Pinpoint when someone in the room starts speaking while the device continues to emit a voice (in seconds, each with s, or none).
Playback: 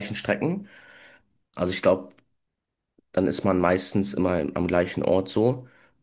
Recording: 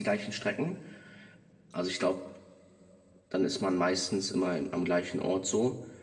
none